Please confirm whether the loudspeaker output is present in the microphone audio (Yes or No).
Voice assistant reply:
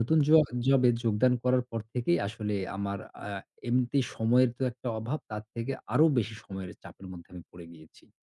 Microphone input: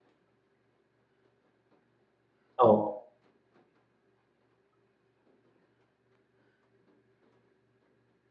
No